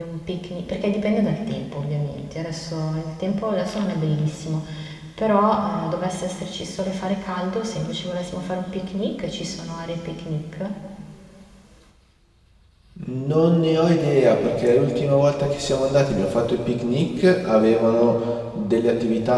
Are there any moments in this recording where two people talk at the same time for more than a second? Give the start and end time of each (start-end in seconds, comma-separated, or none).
none